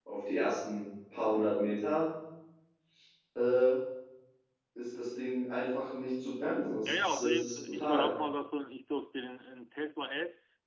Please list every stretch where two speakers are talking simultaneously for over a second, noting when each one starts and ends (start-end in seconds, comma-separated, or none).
6.8-8.1